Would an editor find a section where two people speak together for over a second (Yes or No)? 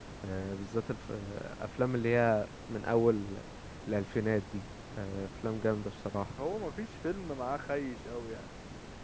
No